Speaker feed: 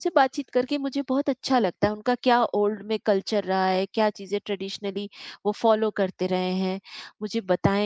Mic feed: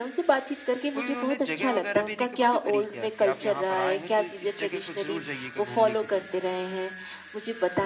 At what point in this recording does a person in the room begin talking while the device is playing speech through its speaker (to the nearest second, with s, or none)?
1 s